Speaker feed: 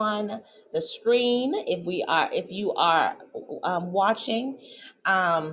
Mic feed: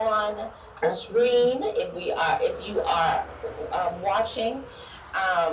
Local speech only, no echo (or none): Absolutely.